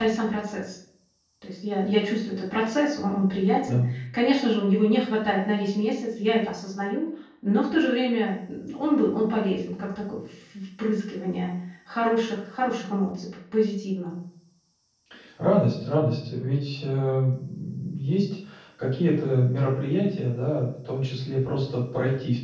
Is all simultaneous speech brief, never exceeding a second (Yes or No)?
Yes